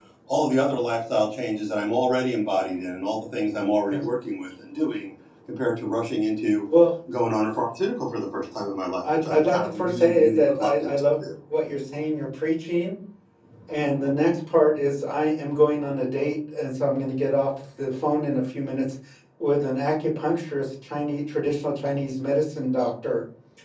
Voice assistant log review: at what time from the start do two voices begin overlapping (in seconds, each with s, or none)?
9.0 s